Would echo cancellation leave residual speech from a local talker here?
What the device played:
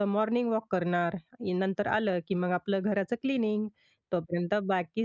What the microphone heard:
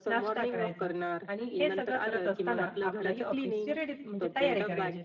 Yes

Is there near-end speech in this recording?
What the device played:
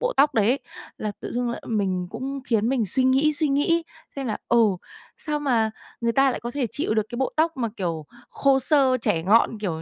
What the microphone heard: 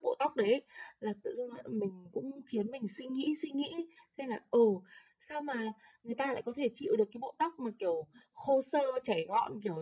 No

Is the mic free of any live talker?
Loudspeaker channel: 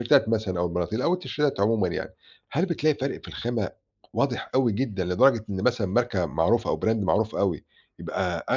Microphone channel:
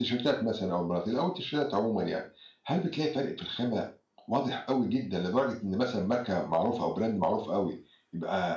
Yes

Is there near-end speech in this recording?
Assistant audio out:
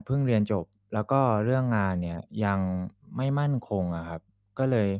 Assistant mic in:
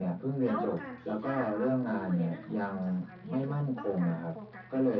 Yes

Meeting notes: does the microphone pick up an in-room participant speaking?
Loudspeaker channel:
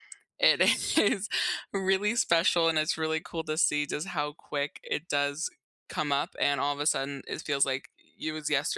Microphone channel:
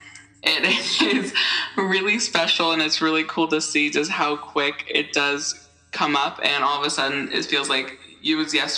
No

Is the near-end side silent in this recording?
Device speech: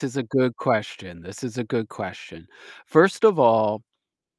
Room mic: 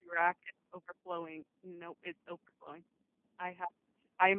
No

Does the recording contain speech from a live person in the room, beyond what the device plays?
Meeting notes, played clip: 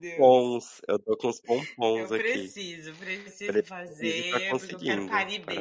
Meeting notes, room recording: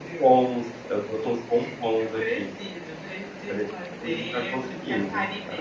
No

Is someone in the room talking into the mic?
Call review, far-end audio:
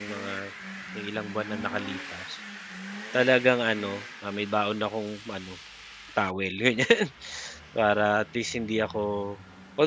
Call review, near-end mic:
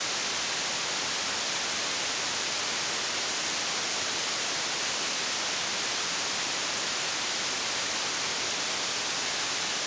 No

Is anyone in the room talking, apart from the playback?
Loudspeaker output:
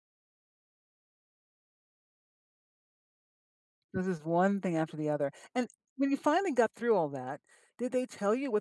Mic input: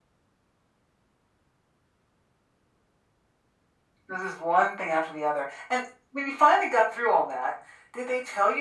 No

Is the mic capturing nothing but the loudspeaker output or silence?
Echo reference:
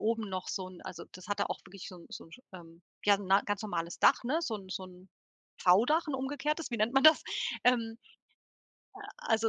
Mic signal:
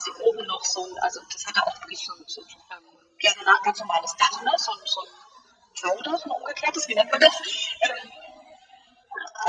Yes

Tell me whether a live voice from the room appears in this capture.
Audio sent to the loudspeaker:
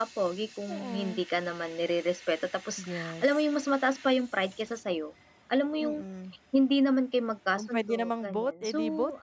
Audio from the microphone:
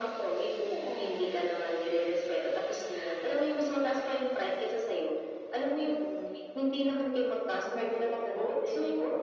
No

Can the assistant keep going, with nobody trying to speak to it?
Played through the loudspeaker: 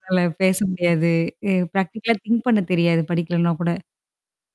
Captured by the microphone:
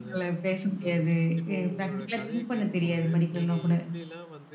No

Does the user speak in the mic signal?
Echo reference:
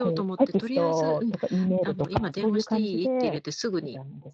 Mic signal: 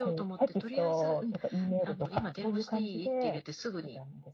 No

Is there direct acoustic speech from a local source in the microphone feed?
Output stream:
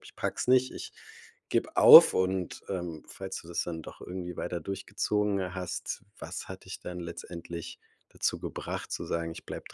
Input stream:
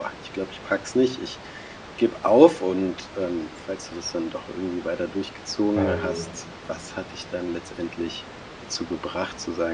Yes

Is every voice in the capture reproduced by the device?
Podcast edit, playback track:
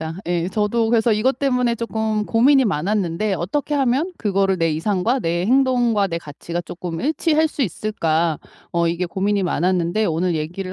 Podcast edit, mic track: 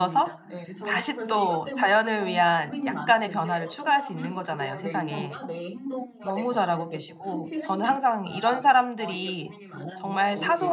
No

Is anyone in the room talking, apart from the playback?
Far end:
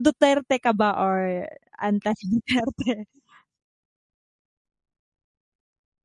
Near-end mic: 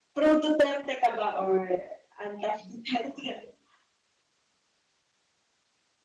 No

